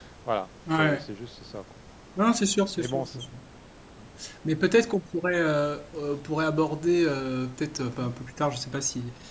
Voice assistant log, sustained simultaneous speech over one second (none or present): none